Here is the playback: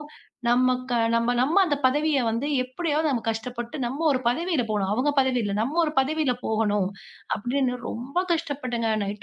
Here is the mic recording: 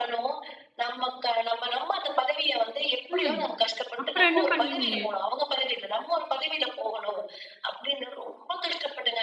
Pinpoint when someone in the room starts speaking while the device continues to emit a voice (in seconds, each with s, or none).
3.1 s